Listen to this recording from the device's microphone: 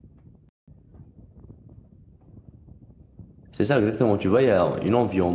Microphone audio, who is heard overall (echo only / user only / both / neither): user only